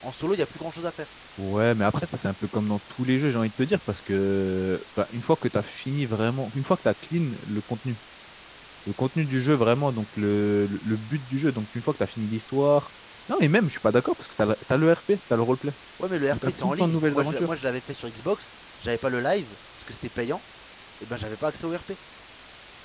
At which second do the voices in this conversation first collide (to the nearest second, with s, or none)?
16 s